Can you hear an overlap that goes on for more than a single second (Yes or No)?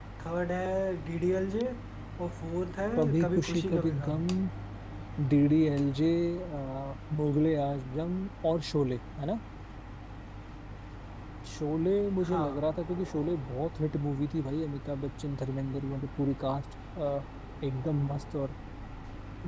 Yes